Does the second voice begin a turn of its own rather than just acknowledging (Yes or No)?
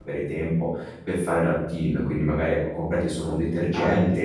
No